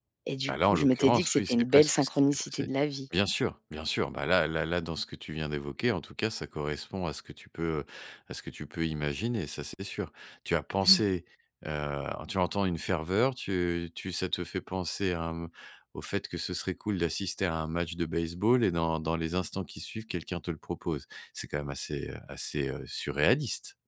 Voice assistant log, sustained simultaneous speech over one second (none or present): present